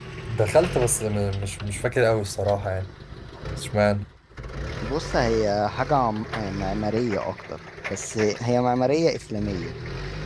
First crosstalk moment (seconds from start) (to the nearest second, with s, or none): none